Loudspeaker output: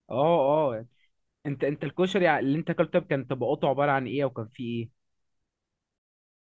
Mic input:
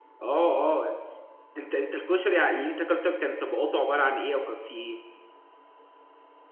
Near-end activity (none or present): none